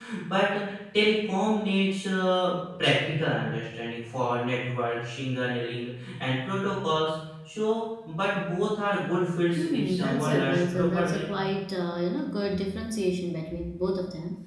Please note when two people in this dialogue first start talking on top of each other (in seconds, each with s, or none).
9.6 s